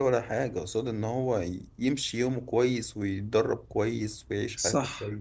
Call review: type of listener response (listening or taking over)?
taking over